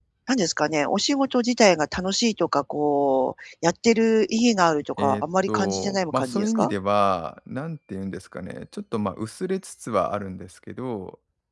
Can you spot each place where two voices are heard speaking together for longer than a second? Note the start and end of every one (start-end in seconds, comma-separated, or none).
5.0-6.7